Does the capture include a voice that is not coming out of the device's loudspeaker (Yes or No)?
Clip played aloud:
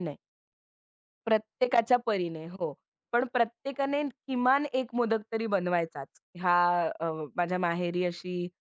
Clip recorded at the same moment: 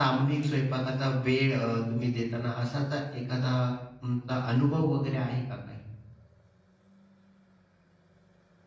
Yes